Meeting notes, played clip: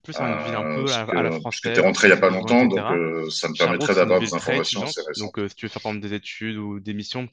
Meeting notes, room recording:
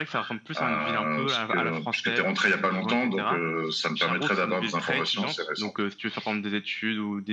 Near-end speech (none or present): none